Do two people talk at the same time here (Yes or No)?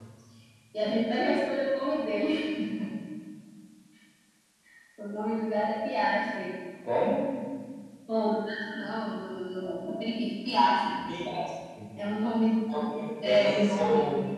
Yes